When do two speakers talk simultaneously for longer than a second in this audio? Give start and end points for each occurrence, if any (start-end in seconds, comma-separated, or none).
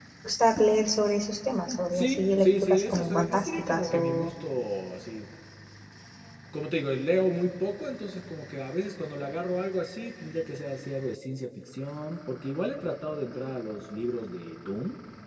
1.9-4.3